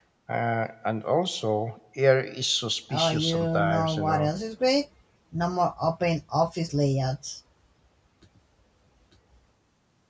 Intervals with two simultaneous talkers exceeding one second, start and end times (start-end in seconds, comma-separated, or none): 2.9-4.3